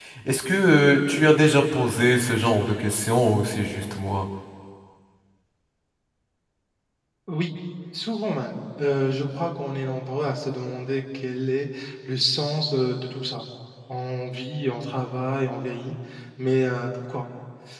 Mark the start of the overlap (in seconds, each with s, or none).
none